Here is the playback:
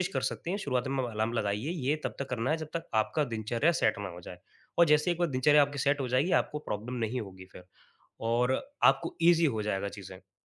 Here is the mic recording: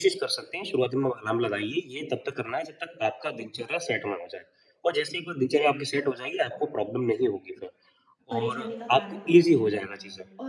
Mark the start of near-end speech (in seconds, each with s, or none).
8.3 s